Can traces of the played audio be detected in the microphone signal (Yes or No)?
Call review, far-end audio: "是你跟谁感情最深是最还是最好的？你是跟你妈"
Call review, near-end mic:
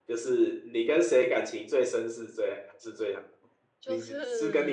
Yes